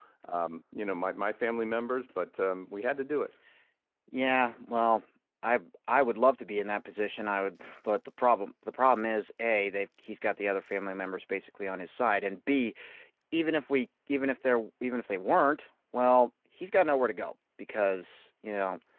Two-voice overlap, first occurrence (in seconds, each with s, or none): none